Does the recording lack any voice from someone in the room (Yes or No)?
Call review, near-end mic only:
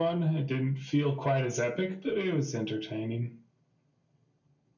Yes